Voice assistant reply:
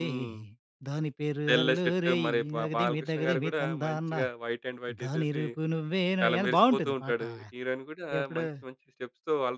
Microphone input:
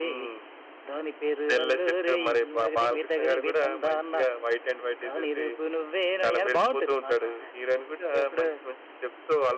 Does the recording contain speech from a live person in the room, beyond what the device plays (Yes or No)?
No